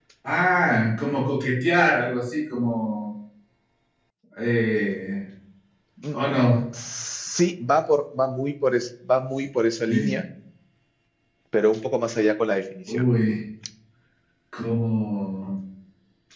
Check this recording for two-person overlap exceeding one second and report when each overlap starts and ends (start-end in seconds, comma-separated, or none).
none